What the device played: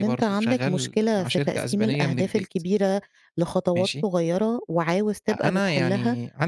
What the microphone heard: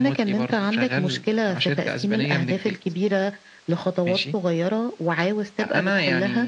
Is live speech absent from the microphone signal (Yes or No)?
Yes